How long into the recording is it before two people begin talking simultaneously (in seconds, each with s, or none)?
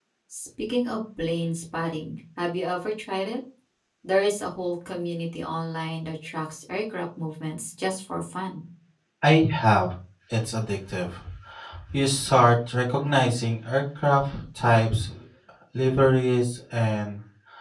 none